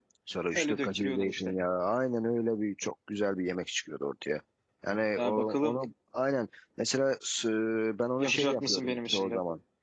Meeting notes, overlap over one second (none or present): present